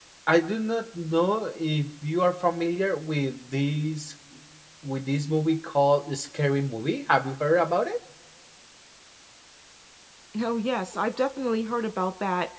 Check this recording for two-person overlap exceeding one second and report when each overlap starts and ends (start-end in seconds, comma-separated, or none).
none